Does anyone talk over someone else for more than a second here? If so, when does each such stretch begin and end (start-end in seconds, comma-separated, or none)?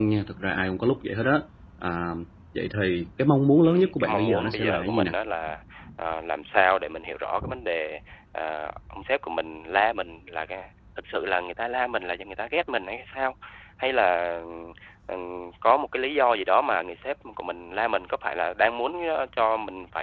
3.6-5.1